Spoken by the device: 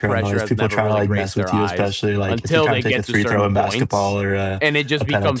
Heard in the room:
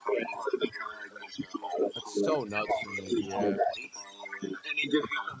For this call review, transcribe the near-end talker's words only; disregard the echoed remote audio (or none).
That's so nuts to me, yeah.